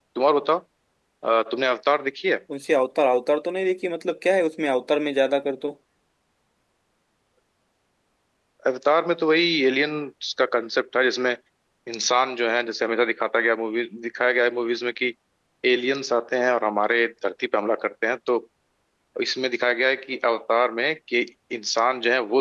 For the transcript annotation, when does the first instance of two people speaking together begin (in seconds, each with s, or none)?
none